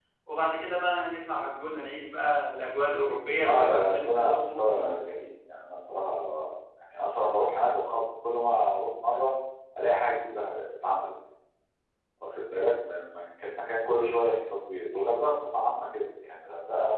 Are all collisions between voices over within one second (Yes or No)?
No